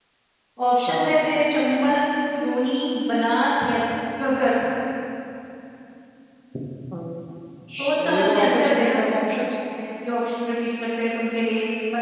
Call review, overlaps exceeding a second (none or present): present